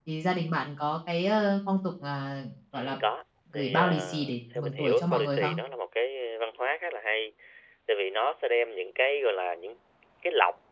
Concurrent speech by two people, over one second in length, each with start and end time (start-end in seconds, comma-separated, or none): 3.5-5.6